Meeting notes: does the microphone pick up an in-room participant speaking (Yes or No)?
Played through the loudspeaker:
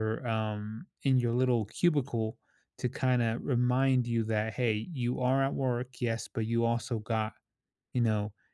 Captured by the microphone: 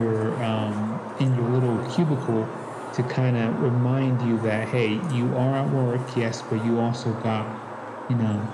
No